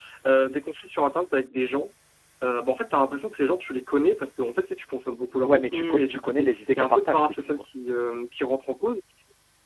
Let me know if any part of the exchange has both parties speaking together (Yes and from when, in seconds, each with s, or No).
Yes, from 5.5 s